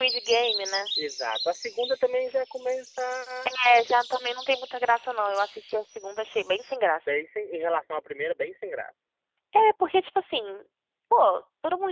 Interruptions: none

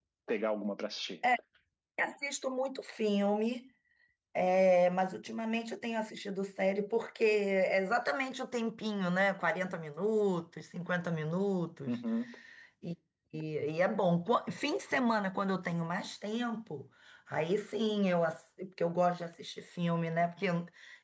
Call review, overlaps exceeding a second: none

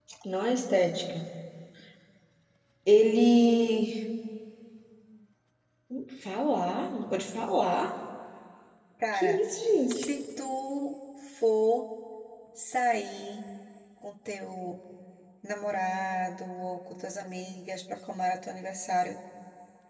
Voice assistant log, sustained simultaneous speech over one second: none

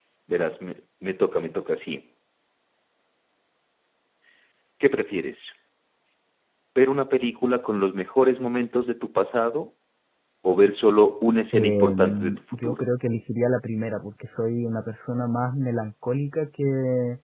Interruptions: present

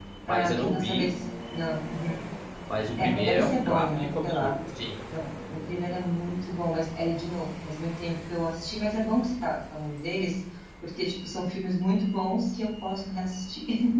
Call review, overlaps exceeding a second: present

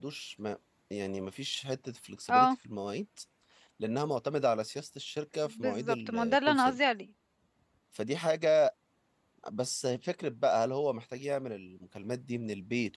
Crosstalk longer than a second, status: present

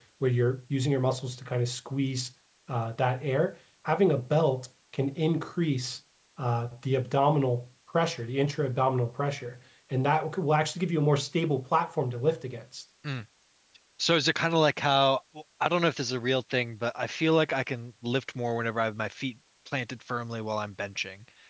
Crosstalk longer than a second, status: none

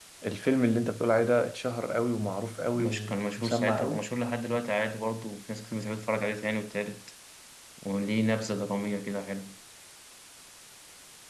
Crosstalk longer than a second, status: present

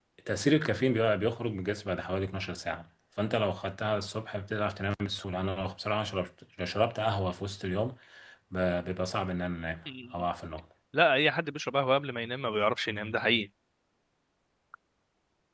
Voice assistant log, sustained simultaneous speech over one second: none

